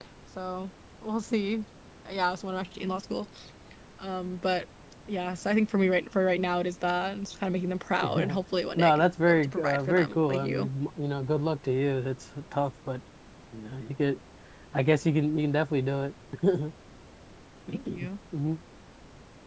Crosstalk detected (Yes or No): Yes